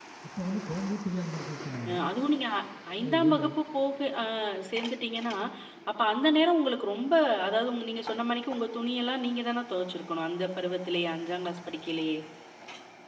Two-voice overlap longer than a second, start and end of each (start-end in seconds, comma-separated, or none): none